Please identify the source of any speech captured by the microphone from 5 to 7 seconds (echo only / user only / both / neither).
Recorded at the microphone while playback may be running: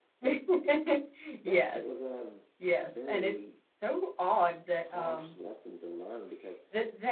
both